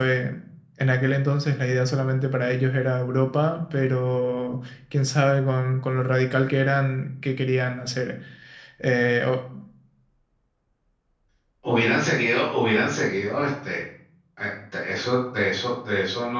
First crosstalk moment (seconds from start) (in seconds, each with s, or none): none